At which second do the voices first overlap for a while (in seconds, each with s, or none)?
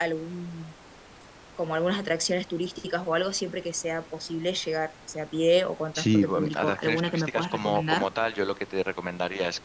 6.0 s